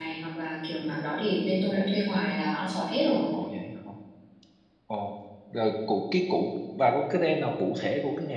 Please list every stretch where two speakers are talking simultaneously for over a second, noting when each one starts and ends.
none

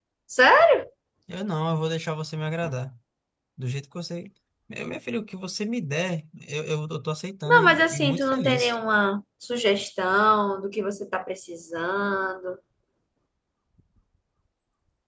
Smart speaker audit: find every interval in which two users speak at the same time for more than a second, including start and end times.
7.5-8.8

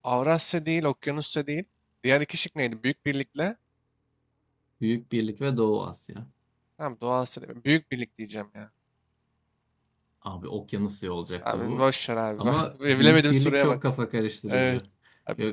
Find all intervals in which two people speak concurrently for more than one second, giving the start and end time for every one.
12.4-13.8

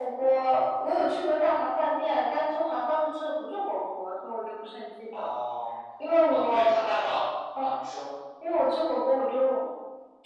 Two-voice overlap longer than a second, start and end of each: none

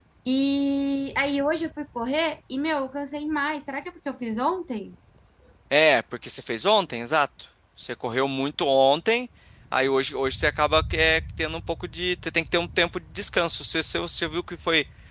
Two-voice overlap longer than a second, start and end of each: none

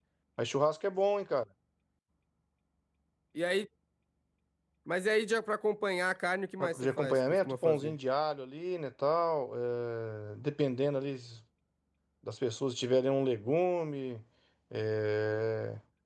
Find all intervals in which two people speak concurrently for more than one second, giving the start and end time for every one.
6.6-8.0

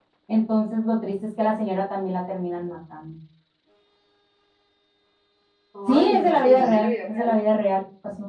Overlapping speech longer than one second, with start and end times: 5.9-7.3

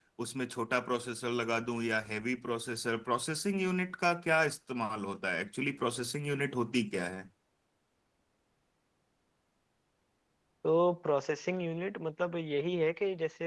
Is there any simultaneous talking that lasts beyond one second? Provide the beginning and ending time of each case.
none

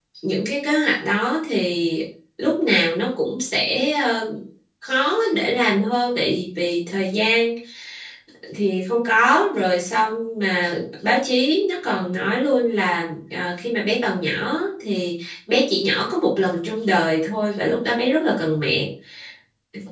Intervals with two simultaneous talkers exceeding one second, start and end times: none

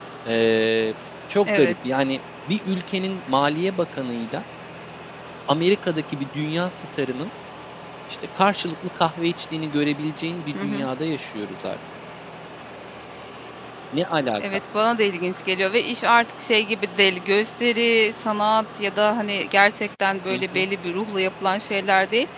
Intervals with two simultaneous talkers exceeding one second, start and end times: none

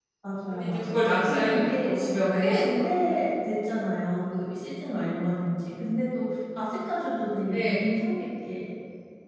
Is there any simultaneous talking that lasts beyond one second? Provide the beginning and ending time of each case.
0.5-1.9

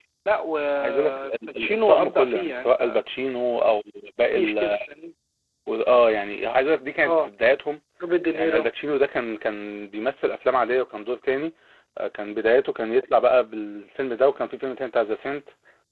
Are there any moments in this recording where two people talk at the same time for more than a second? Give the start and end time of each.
0.8-3.0

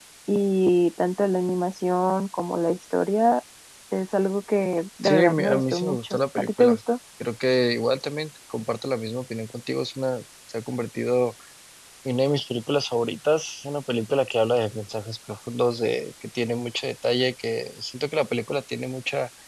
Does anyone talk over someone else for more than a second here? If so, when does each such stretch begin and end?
5.0-6.8

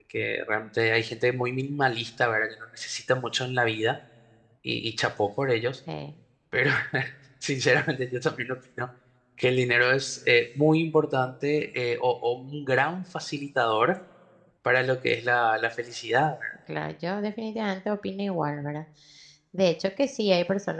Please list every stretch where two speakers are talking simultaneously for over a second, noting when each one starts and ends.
none

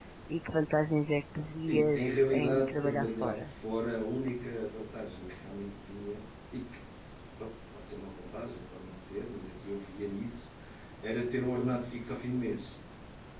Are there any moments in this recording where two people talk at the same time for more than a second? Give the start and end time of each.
1.7-3.5

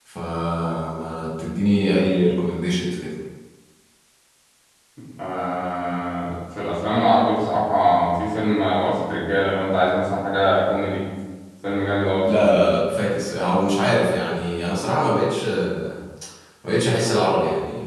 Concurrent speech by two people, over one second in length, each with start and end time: none

